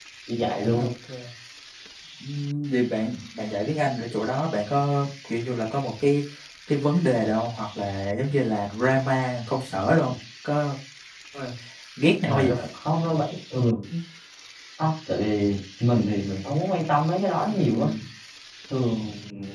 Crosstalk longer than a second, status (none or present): none